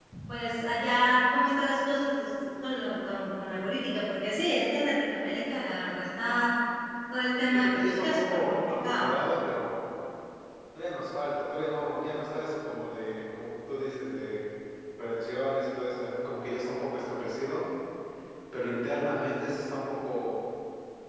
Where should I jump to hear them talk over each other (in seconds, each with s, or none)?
7.5 s